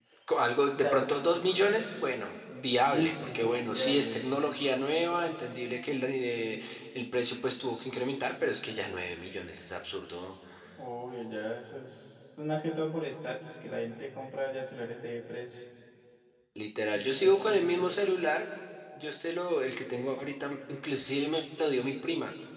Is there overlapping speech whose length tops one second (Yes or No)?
Yes